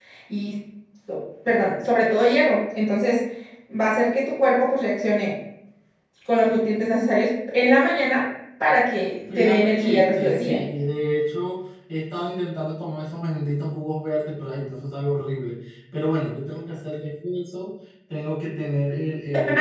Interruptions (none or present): present